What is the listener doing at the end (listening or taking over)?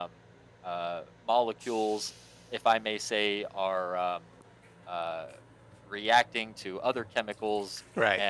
listening